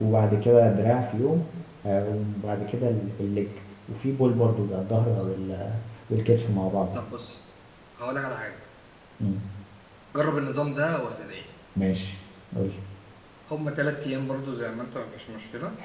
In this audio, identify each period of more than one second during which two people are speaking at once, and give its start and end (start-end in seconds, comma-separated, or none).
none